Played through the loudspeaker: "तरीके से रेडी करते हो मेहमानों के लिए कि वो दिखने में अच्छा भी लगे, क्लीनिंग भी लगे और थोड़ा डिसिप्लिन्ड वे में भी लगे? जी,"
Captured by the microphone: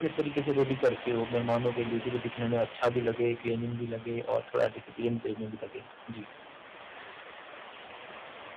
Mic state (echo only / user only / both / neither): echo only